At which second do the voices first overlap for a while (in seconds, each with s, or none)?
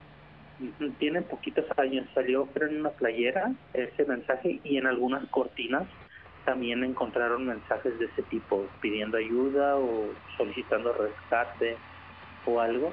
none